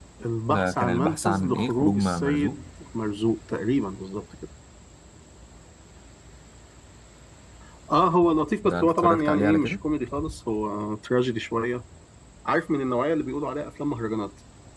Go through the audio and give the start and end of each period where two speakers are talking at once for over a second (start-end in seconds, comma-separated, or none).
0.5-2.6, 8.6-9.8